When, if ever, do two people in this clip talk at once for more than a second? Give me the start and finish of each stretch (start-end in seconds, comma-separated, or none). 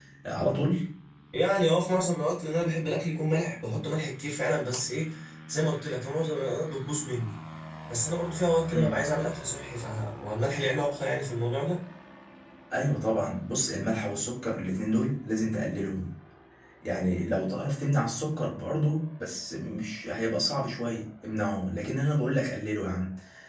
none